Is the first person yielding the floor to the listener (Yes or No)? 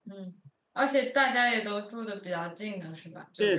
Yes